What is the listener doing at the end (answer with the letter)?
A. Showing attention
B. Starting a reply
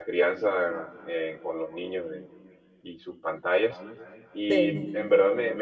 A